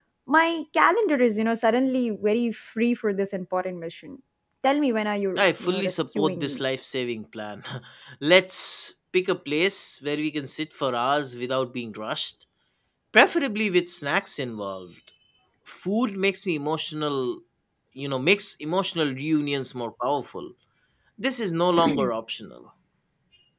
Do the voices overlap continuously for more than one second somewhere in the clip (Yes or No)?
Yes